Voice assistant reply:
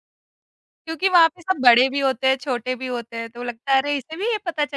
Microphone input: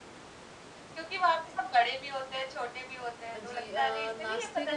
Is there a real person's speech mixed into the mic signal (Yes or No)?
Yes